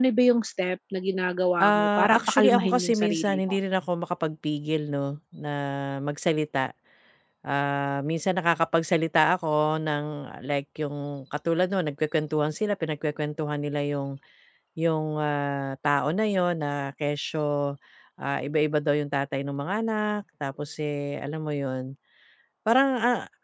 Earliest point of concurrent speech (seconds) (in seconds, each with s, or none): 1.6 s